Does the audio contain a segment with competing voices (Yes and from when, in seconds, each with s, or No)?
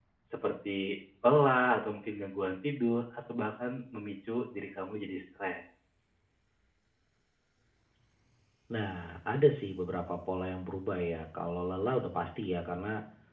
No